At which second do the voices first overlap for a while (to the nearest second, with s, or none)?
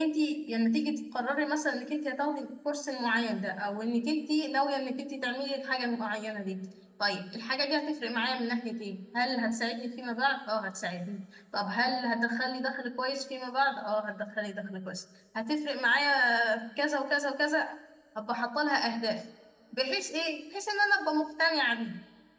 none